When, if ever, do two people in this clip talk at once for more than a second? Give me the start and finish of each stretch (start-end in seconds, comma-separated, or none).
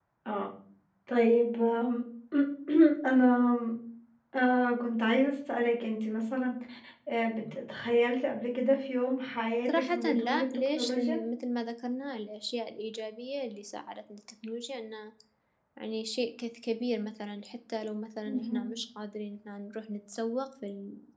9.7-11.2